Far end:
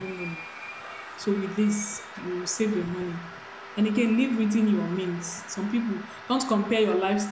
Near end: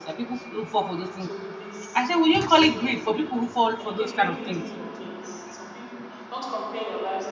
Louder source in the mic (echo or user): user